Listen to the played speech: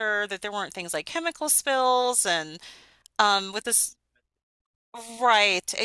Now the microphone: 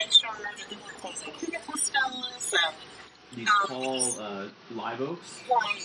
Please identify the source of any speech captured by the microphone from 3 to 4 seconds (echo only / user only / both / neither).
both